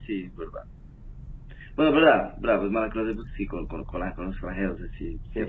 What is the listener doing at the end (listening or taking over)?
taking over